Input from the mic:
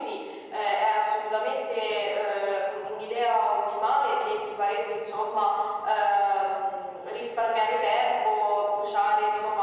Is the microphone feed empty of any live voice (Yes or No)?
Yes